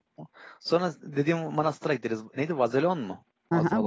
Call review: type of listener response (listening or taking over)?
taking over